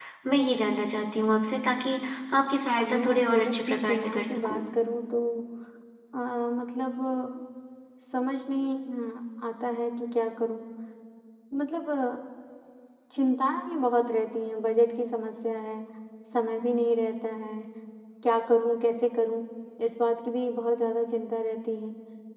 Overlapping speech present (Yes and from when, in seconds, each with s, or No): Yes, from 2.6 s